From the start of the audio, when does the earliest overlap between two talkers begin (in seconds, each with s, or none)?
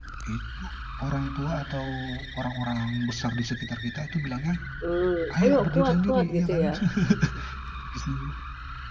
5.4 s